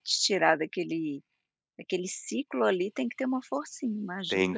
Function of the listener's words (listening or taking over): taking over